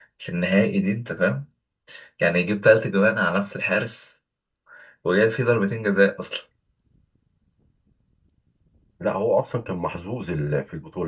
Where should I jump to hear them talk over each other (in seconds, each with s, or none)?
none